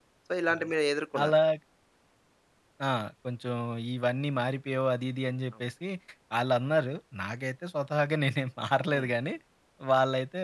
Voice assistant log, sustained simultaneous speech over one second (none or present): none